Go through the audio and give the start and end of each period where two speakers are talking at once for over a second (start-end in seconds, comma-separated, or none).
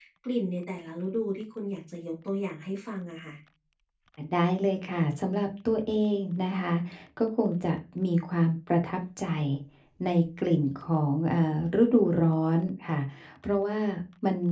none